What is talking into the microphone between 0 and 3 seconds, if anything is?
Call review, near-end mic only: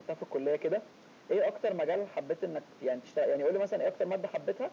echo only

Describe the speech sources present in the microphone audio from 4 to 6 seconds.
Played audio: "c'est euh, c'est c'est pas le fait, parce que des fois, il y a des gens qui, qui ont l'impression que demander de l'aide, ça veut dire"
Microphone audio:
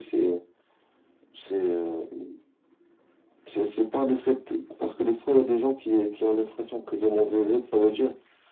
echo only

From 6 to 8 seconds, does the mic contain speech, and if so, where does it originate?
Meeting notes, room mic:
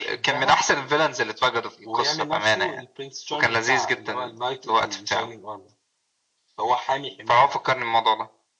echo only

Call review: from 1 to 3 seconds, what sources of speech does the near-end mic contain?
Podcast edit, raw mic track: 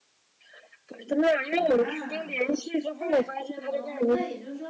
both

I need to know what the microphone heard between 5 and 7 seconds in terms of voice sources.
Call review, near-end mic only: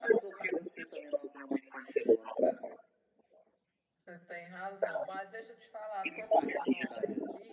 both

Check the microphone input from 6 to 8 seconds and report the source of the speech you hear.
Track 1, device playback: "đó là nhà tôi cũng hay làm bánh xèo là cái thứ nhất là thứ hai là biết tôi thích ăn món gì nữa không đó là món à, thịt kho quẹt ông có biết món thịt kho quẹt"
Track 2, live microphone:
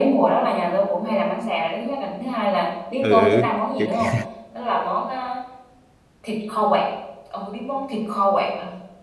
echo only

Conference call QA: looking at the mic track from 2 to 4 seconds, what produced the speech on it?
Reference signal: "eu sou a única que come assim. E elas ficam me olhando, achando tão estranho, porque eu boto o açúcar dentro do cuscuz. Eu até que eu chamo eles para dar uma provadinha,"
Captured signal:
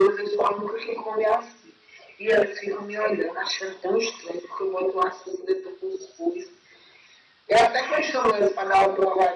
echo only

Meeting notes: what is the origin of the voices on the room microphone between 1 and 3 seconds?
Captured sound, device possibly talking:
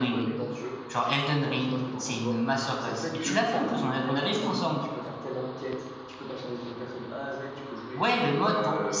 both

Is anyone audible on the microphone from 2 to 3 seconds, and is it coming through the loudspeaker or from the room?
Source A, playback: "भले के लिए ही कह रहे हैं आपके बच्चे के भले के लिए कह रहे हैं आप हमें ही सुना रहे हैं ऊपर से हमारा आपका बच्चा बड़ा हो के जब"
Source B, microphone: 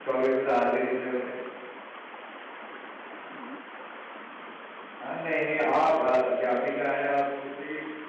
neither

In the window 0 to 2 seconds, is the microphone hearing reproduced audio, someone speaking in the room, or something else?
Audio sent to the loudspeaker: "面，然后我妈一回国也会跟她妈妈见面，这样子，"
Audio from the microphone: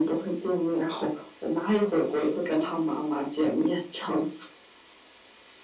echo only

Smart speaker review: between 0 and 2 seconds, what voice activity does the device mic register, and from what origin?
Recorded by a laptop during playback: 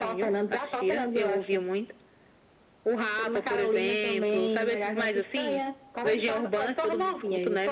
echo only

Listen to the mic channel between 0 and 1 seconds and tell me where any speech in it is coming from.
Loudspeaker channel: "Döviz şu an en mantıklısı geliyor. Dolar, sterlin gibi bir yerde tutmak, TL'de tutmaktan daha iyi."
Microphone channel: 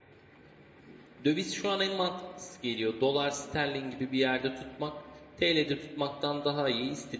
neither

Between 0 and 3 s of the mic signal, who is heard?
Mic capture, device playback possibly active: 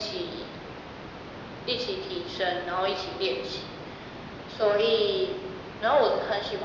echo only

